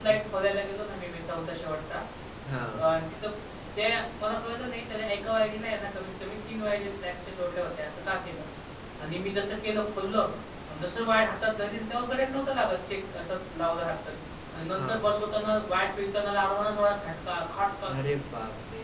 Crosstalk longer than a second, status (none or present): none